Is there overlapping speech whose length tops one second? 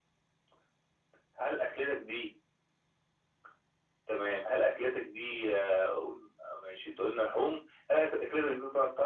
No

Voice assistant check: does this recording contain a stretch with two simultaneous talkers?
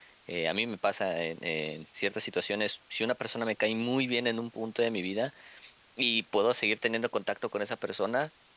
No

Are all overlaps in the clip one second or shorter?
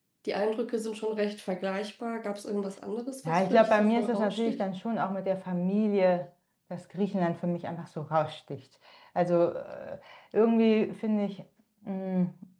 No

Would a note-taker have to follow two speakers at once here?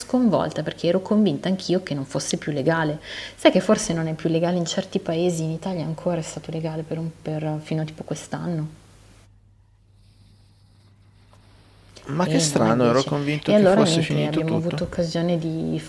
Yes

